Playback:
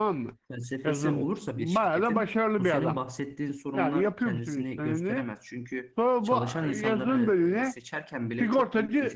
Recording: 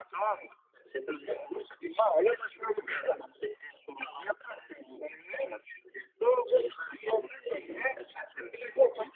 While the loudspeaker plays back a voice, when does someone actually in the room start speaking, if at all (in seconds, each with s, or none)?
7.4 s